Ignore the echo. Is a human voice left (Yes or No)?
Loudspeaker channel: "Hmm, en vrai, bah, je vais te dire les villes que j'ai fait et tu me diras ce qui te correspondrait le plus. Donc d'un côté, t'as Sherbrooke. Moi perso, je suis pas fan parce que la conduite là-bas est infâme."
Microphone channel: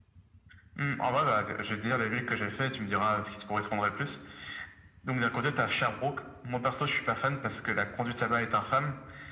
No